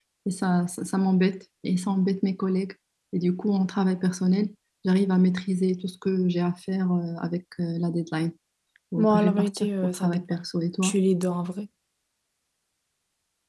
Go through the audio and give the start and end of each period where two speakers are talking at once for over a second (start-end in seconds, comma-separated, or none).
9.0-10.4